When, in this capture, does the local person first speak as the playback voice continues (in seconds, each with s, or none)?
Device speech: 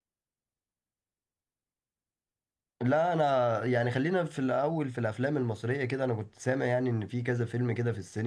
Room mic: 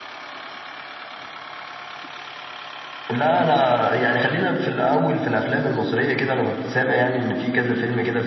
none